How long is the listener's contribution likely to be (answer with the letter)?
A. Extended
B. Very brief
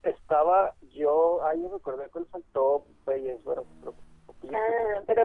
A